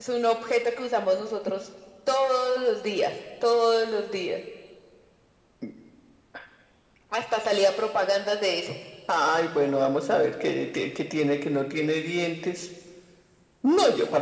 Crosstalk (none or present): none